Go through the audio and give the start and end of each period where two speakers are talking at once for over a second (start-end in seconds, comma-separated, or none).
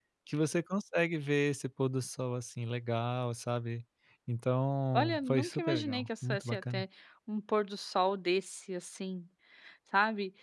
4.9-6.8